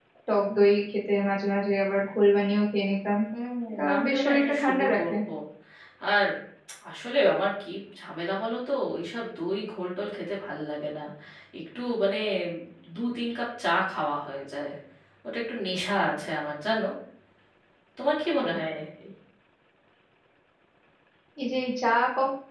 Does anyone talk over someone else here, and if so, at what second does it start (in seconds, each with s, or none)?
3.9 s